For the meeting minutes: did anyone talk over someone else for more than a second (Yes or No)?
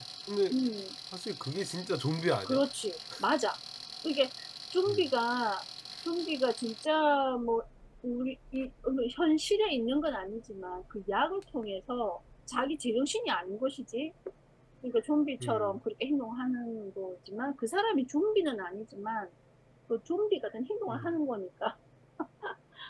No